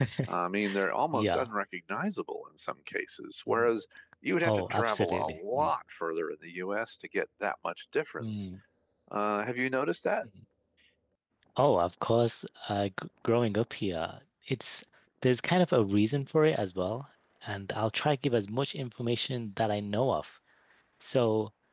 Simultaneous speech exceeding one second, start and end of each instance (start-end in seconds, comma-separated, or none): 4.4-5.7